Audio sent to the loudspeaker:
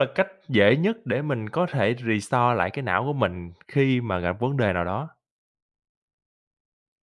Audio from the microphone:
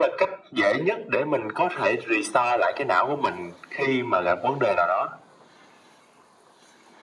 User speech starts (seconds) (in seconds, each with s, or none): none